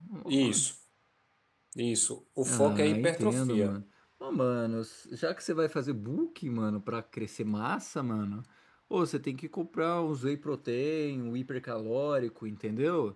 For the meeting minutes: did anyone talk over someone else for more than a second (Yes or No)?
Yes